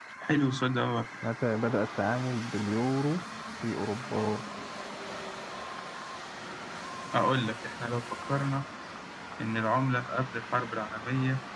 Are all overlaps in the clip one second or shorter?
Yes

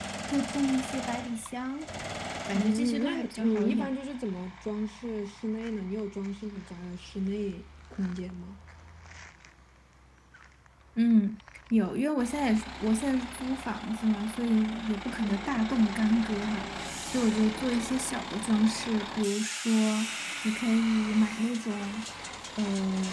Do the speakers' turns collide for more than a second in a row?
Yes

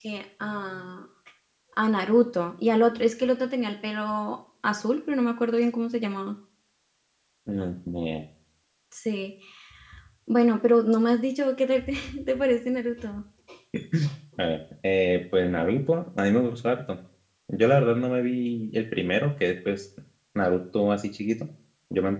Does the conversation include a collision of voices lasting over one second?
No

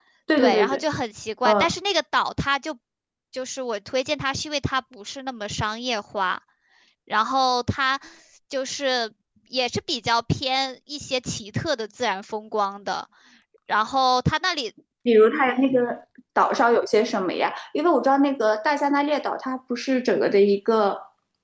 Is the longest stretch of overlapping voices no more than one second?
Yes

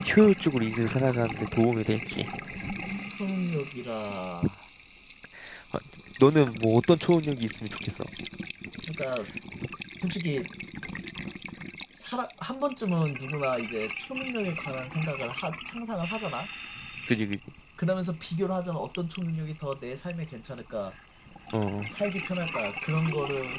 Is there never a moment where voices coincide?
Yes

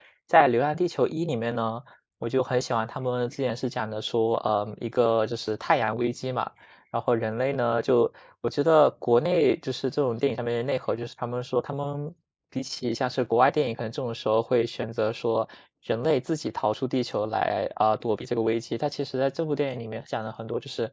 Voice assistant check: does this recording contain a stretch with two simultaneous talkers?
No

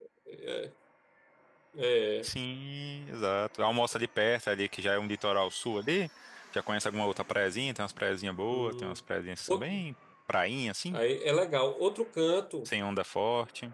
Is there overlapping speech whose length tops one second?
No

